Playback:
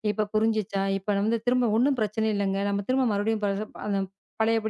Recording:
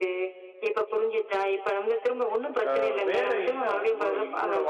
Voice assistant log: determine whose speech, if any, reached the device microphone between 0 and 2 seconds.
echo only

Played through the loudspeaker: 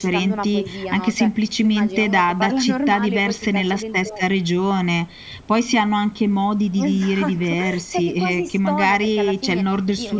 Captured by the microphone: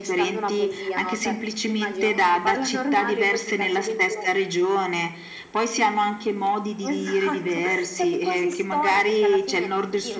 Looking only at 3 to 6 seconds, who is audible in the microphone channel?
echo only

